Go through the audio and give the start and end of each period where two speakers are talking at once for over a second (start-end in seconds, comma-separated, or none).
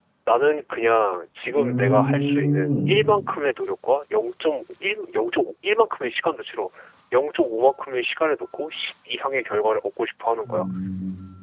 1.6-2.9